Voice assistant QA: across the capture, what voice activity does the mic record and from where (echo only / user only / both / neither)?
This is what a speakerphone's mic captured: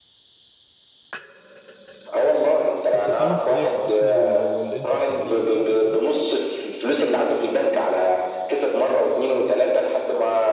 both